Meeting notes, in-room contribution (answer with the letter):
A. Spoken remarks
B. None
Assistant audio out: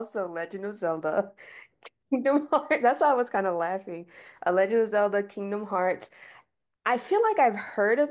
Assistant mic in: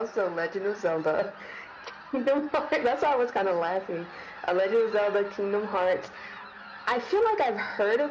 B